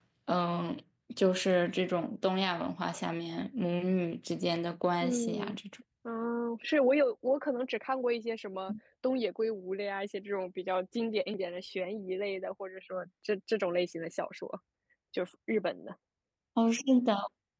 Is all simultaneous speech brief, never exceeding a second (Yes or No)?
Yes